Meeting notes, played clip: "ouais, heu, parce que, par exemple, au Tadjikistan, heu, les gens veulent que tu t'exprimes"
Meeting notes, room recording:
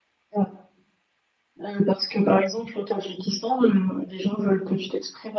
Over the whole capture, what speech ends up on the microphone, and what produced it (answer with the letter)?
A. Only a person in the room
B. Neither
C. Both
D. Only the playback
D